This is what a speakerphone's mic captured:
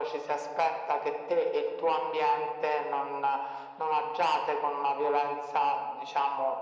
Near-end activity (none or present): none